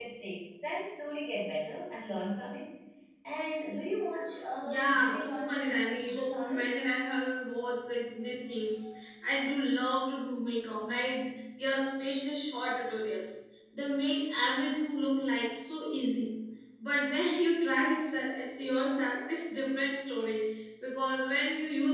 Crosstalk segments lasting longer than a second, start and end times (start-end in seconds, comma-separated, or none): 4.6-6.7